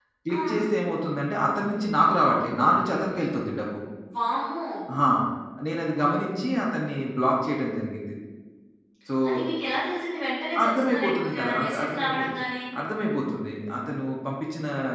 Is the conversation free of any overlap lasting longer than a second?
No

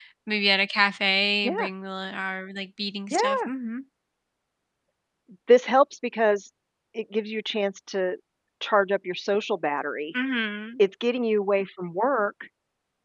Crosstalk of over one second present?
No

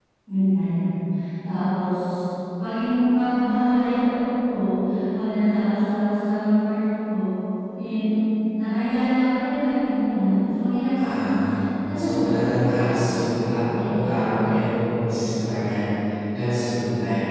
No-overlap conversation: No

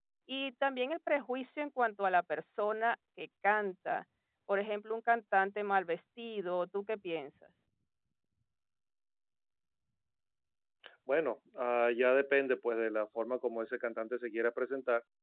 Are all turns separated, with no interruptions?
Yes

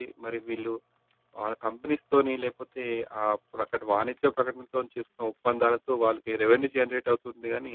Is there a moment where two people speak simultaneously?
No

